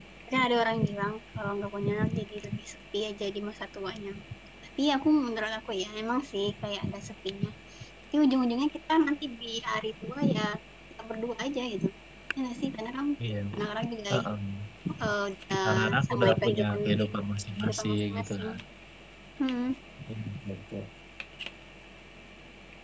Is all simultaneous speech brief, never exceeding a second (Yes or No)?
No